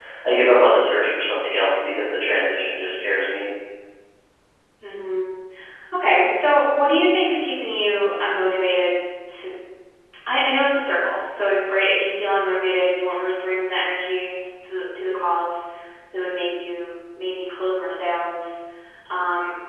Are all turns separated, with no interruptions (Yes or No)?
Yes